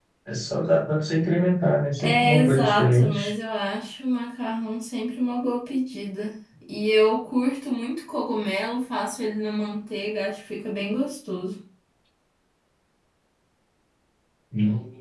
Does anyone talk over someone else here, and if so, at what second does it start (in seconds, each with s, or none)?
2.0 s